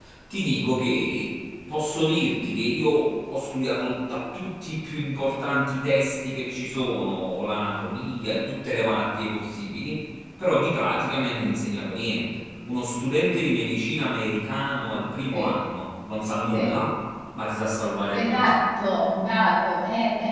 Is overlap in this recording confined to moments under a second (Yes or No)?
Yes